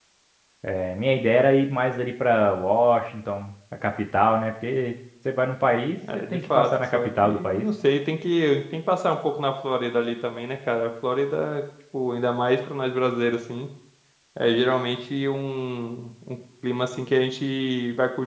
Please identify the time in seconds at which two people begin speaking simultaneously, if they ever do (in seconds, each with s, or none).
6.0 s